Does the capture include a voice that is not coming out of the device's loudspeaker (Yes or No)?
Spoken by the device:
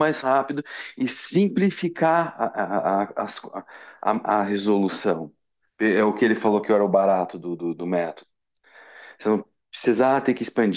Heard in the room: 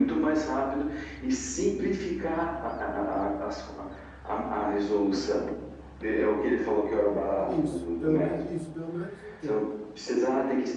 Yes